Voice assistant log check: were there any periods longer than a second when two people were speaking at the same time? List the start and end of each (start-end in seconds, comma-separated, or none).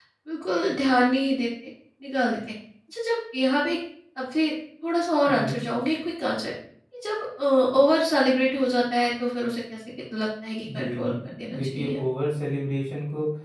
10.7-12.0